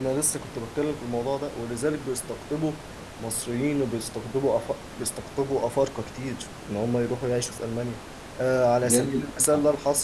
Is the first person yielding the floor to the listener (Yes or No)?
No